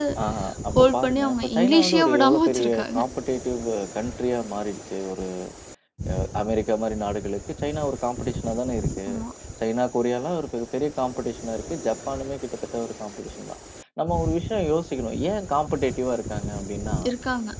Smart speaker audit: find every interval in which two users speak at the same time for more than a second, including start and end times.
0.8-3.0

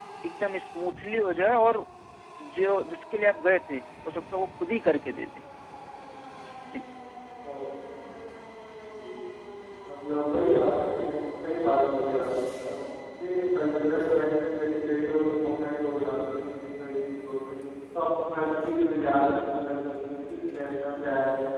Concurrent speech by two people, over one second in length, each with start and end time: none

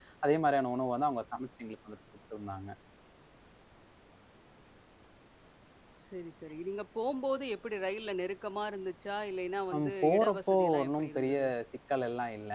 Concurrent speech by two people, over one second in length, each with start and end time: 9.8-11.4

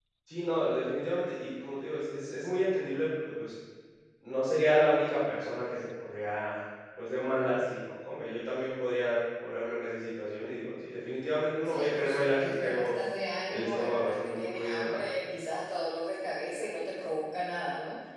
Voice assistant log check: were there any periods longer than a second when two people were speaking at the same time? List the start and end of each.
11.6-13.0, 13.5-15.0

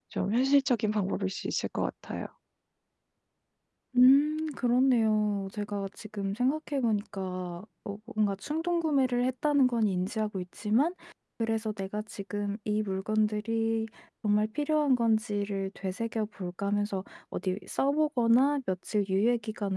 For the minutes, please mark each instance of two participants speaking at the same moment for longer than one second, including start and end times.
none

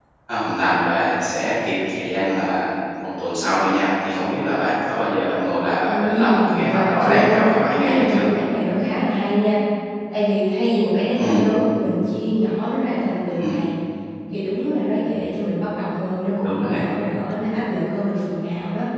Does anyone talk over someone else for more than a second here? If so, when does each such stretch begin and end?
5.9-7.4

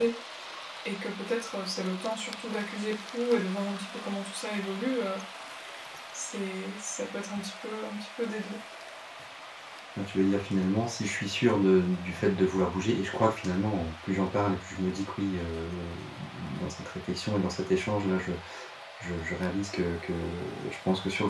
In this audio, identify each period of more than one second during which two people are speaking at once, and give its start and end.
none

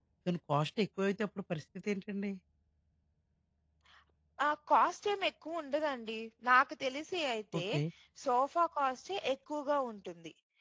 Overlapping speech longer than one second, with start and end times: none

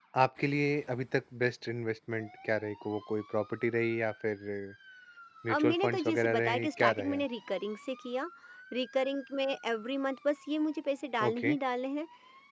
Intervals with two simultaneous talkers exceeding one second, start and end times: 5.5-7.2

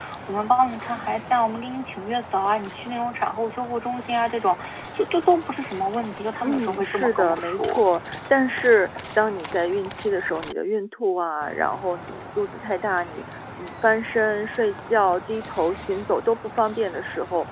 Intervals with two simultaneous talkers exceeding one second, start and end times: 6.4-7.8

